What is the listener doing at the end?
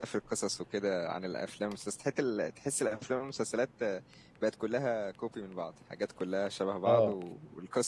listening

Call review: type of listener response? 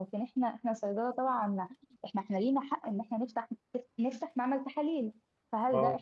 listening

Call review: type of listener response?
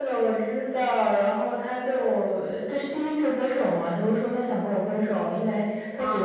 listening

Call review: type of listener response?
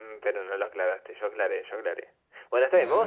listening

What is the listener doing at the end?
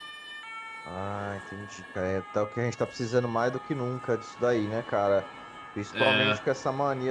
listening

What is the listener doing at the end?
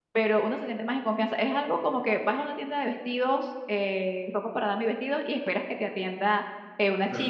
listening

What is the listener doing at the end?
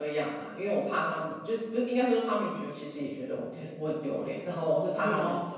taking over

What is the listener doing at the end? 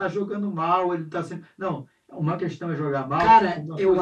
taking over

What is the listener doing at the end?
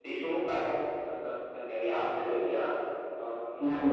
taking over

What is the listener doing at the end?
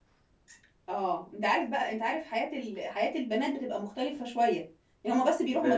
listening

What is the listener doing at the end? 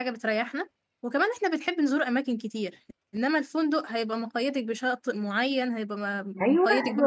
taking over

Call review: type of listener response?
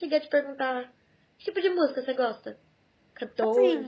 taking over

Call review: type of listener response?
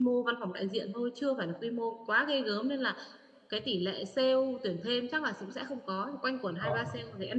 listening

